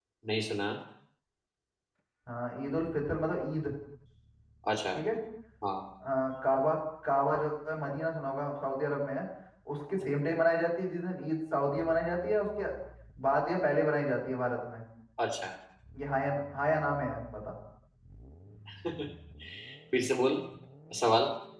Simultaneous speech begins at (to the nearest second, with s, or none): none